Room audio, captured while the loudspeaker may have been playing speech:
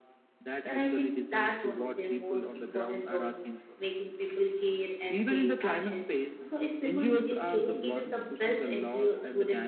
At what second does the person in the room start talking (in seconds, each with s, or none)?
0.6 s